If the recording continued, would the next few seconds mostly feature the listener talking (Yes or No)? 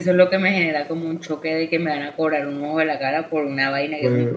Yes